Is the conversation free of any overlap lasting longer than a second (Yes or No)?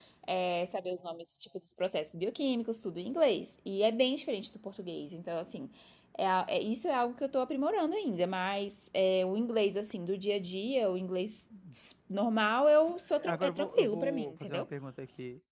No